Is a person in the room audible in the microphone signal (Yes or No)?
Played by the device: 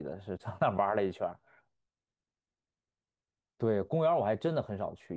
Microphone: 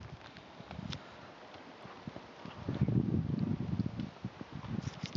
No